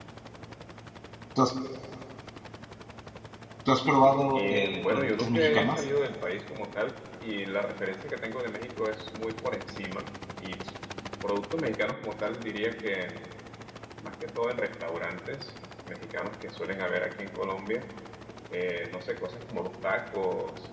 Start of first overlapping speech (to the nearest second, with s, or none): 4 s